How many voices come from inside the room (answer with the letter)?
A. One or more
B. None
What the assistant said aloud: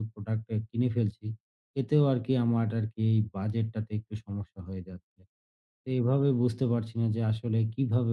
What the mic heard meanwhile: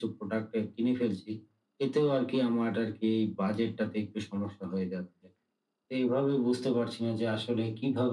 B